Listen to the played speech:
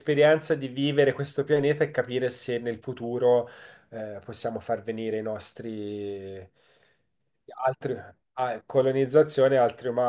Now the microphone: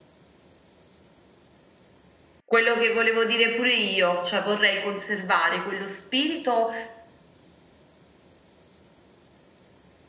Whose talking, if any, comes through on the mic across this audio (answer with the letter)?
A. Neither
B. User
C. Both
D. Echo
B